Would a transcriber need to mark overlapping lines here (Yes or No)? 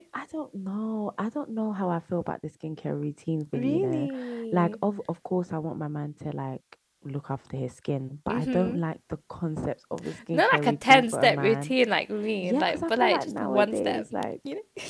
Yes